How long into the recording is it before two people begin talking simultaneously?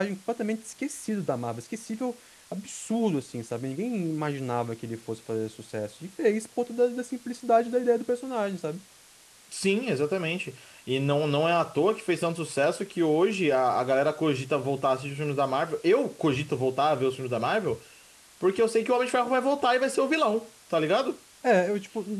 none

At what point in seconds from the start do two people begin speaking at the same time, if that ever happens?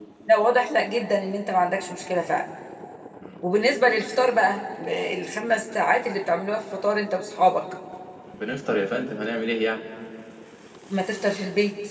none

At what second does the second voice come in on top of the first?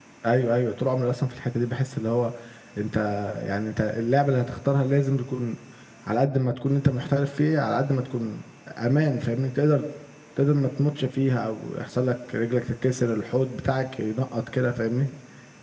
none

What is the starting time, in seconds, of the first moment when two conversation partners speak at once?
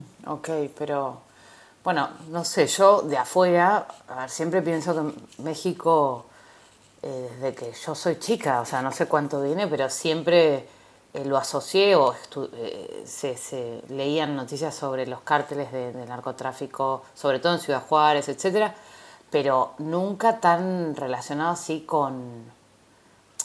none

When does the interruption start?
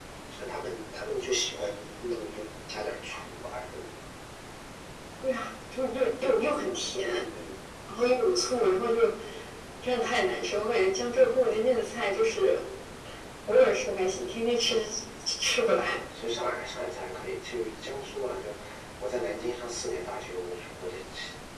none

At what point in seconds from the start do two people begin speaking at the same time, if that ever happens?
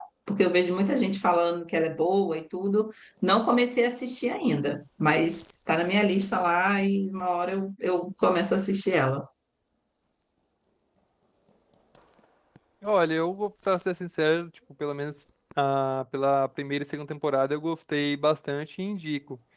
none

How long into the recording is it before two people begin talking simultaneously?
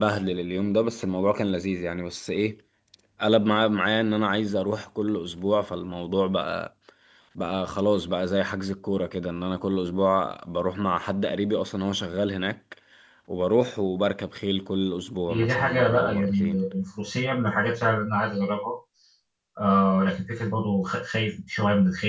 15.3 s

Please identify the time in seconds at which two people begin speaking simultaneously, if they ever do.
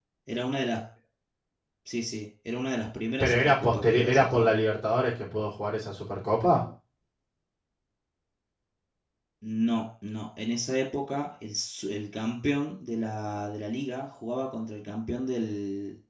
3.2 s

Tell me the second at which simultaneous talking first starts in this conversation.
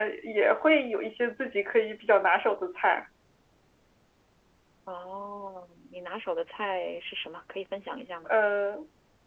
none

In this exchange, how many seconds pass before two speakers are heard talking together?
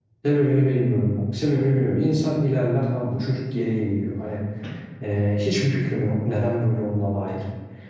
none

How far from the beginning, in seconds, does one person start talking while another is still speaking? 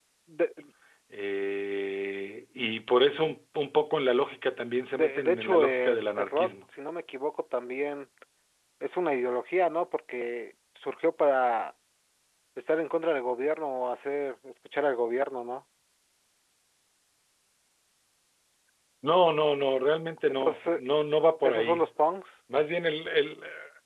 4.9 s

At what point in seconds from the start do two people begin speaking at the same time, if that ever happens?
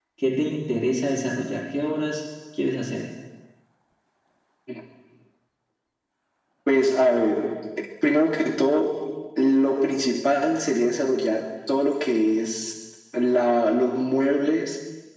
none

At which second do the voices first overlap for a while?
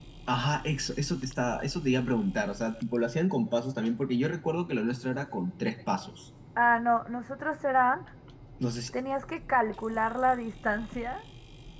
none

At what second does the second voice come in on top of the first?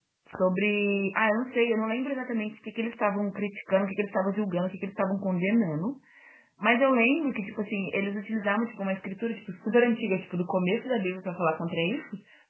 none

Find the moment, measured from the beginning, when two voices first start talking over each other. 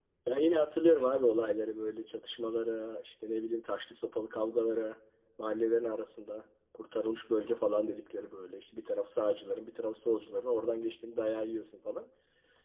none

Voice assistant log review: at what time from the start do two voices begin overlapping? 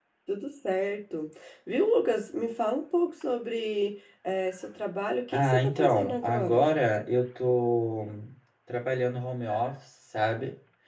5.3 s

